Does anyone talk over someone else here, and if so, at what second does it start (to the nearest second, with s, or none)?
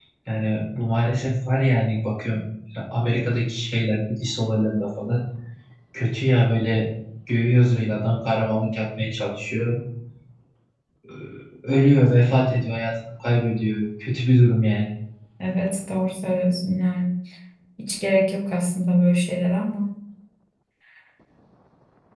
none